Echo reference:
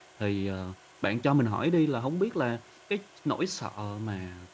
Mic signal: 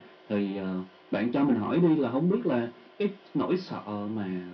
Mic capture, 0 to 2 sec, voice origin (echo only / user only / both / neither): echo only